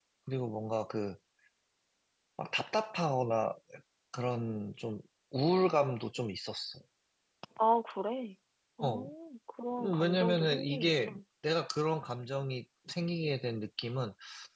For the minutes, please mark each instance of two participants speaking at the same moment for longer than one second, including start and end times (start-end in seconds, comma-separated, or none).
9.8-11.2